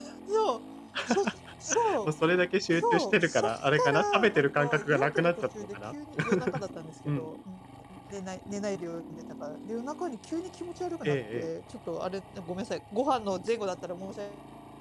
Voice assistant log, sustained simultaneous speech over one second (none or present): present